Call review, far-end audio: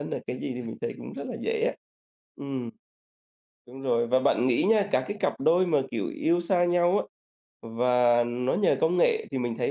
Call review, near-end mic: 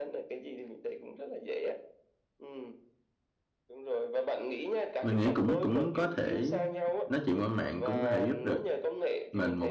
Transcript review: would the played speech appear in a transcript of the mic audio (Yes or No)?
Yes